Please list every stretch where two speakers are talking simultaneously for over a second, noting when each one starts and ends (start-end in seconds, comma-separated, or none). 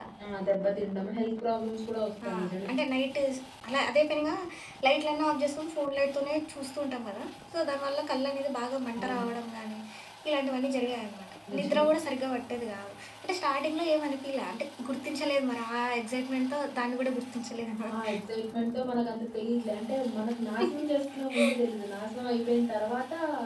none